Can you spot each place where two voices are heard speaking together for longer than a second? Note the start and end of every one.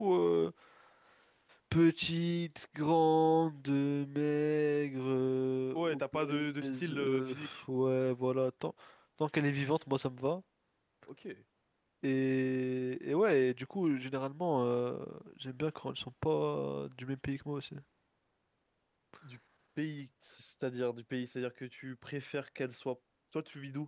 5.7-7.6

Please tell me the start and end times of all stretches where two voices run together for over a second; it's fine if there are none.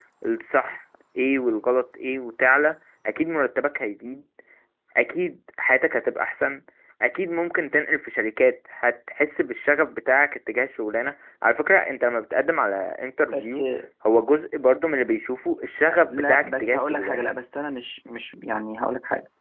16.1-17.3

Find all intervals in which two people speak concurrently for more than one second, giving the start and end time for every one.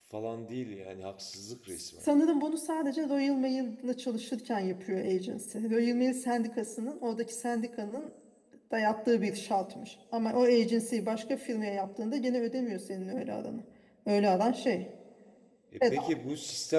none

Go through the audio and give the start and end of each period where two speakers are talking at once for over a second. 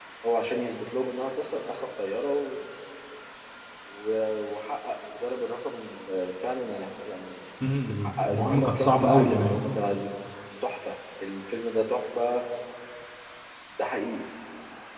8.0-9.6

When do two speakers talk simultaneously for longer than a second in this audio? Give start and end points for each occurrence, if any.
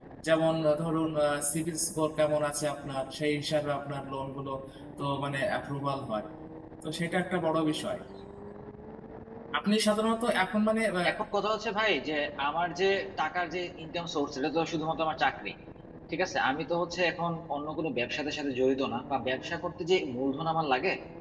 none

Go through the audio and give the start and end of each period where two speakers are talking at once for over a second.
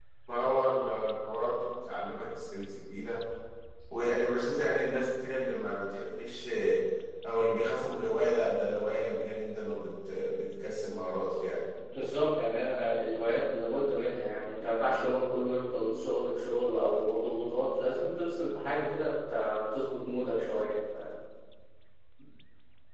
none

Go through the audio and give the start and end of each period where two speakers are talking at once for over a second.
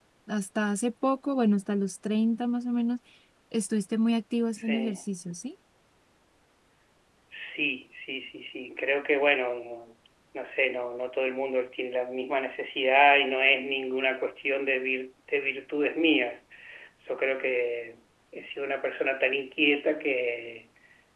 none

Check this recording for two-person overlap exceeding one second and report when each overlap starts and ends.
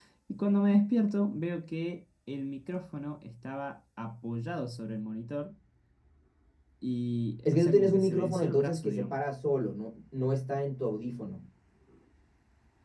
7.4-9.2

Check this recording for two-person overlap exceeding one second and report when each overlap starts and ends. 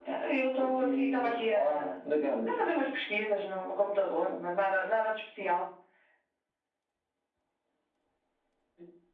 0.6-1.9

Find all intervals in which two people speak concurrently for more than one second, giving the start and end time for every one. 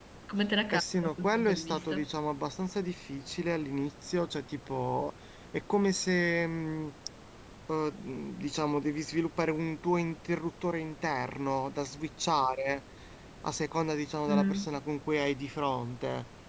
0.7-2.1

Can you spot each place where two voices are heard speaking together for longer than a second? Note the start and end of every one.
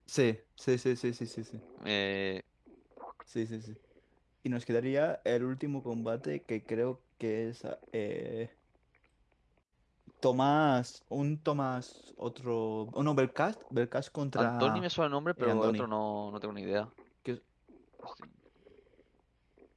none

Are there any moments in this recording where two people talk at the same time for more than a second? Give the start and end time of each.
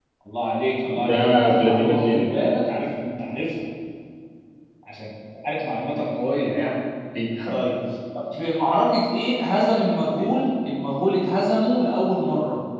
1.1-2.3

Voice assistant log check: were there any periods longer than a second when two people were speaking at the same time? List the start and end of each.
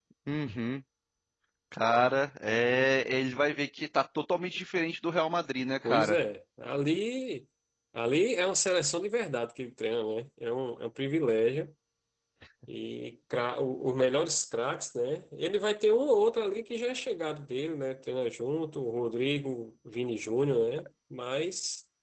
none

